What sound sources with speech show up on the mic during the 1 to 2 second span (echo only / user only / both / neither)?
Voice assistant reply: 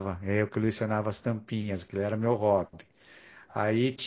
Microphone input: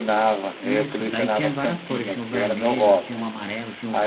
both